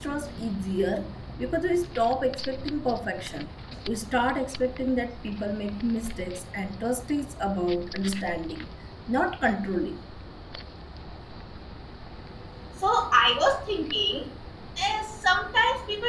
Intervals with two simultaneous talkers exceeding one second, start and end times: none

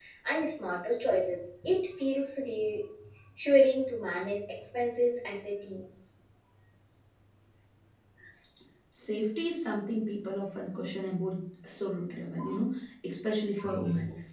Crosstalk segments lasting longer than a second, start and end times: none

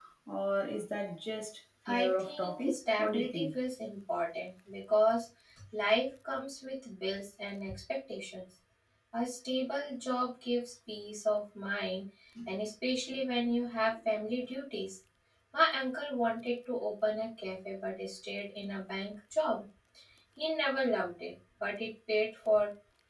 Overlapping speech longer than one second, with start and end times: 1.9-3.5

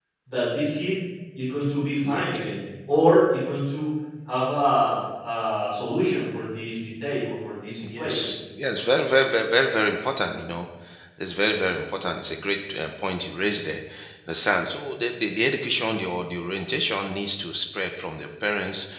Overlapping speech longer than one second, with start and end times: none

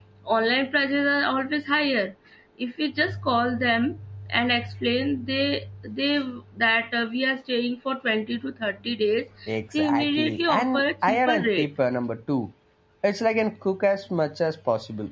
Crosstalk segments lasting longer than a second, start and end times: 9.7-11.7

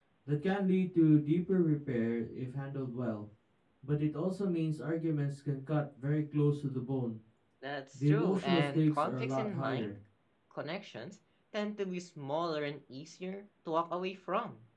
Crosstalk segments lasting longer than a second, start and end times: 8.1-9.9

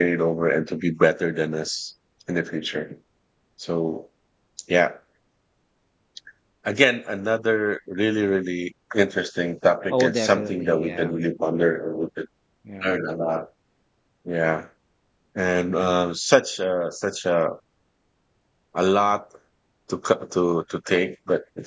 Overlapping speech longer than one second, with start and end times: 9.9-11.1

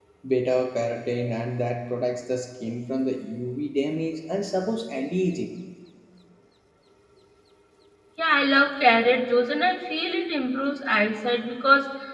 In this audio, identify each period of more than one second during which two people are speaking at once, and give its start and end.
none

